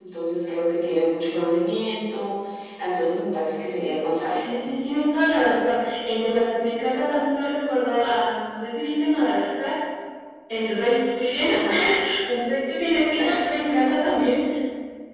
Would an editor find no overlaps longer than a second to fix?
Yes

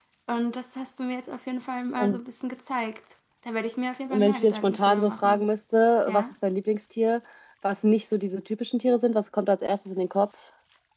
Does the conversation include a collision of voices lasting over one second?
Yes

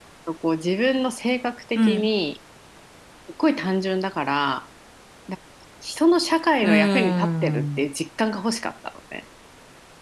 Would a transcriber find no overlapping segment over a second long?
No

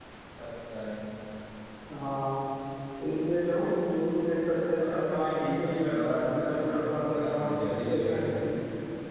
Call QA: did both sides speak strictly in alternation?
No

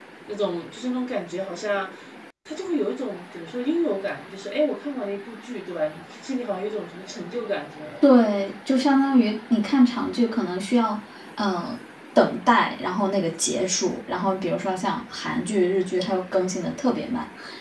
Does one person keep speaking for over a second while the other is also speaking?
No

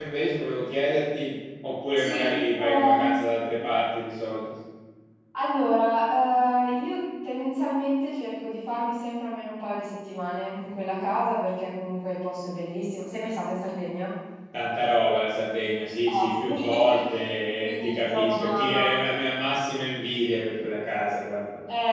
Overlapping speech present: Yes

